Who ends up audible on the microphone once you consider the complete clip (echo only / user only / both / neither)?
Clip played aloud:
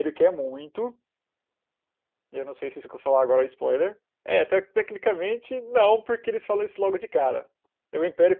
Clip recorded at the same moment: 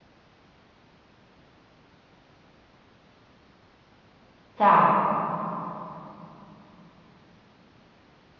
user only